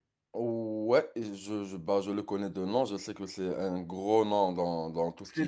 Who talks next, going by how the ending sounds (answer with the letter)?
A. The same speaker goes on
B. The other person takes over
B